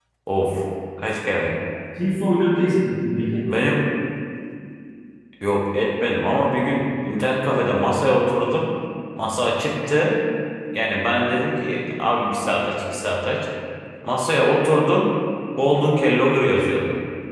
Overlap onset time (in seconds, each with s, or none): none